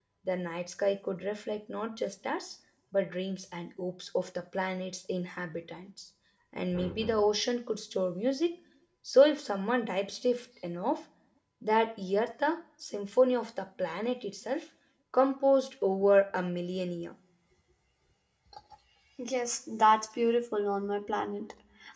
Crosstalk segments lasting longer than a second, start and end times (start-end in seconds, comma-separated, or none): none